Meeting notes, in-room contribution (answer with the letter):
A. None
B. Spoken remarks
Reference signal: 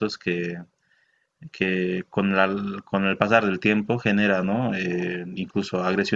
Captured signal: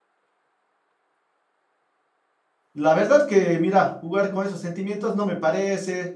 B